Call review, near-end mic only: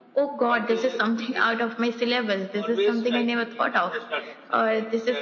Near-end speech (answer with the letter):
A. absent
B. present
B